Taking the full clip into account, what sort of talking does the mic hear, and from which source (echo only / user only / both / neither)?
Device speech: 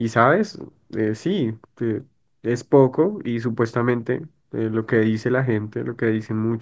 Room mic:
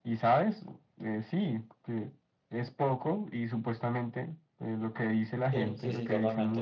both